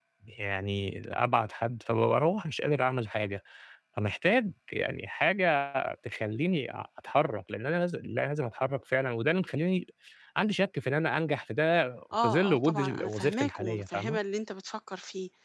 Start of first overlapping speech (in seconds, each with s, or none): 12.1 s